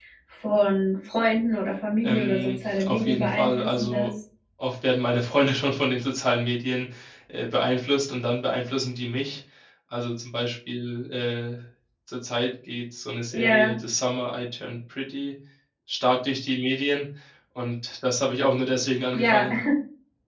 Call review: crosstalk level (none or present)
present